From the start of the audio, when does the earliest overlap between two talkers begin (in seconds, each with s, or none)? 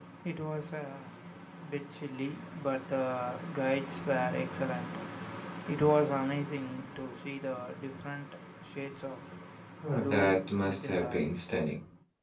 10.0 s